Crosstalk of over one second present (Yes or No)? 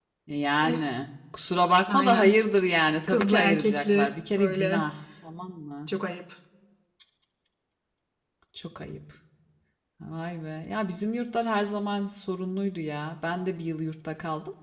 Yes